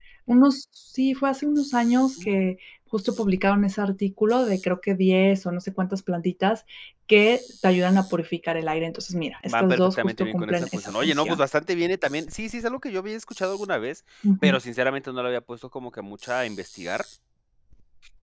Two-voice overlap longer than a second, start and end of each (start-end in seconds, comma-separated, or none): 9.4-11.4